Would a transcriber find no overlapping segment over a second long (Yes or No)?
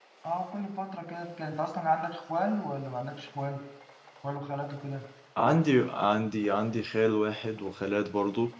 Yes